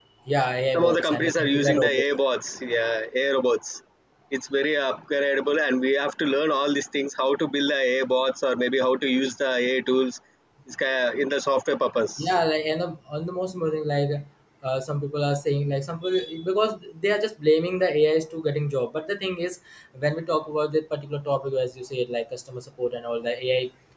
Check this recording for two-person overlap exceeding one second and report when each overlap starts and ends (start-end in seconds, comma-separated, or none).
0.8-2.0